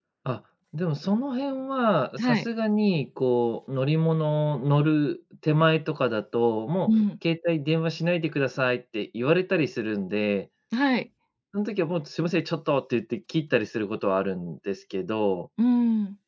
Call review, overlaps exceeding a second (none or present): none